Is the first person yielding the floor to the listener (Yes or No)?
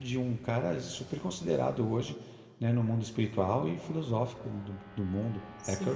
Yes